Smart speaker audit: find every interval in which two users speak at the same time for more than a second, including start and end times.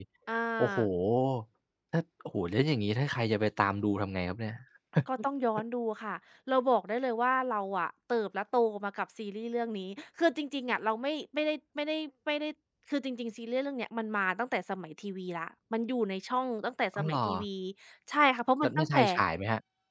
none

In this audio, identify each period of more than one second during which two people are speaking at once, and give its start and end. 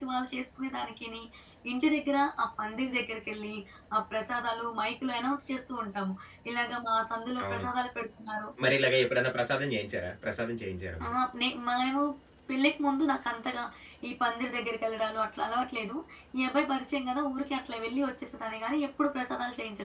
none

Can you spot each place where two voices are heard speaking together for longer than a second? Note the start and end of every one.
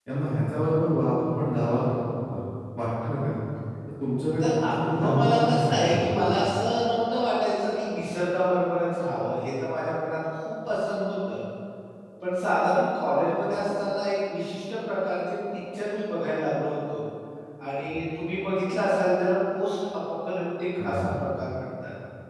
4.4-6.3

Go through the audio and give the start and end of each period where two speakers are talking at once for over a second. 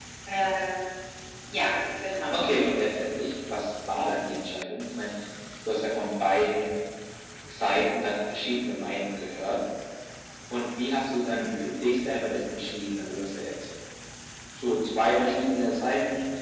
none

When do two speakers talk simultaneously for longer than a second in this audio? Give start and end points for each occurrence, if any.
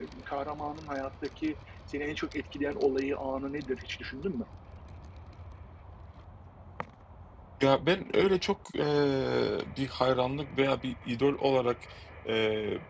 none

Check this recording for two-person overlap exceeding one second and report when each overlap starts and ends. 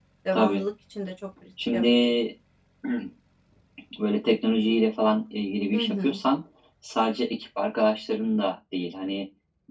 none

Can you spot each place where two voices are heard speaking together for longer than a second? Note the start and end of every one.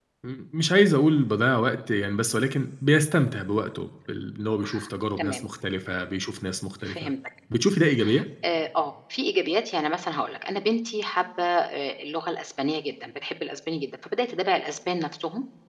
none

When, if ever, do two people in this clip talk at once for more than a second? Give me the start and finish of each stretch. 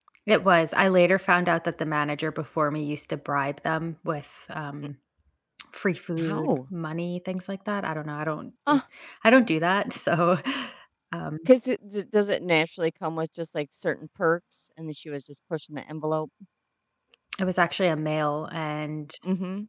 none

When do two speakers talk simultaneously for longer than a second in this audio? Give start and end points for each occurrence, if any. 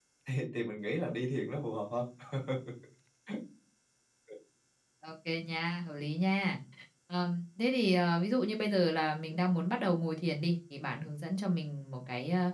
none

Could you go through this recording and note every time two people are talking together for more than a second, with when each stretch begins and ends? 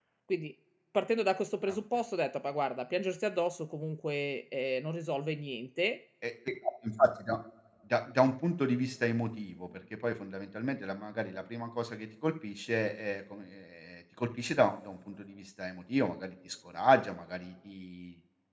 none

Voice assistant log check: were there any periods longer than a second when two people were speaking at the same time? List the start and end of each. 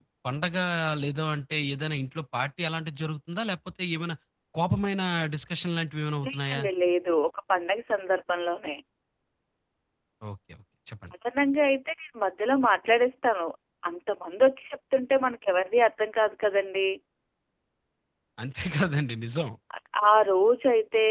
none

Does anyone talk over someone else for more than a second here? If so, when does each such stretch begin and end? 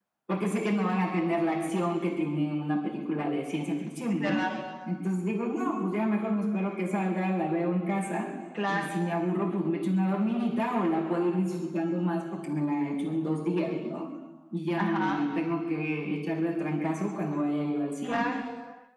none

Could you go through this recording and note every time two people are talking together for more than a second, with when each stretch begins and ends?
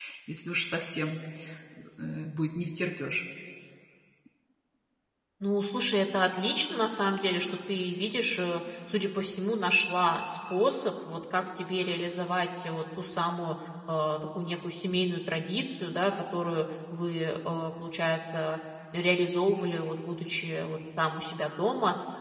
none

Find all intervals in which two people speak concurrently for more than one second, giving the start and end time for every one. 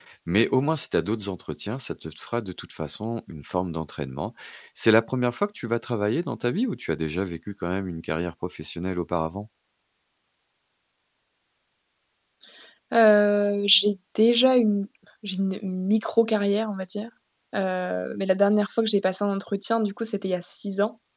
none

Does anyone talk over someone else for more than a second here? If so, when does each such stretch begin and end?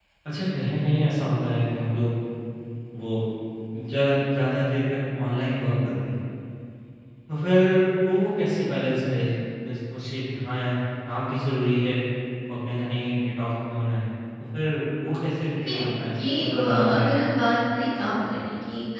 15.6-17.3

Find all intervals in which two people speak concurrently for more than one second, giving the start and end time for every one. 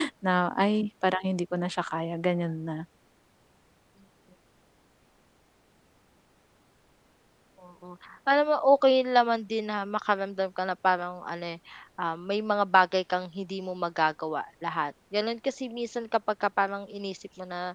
none

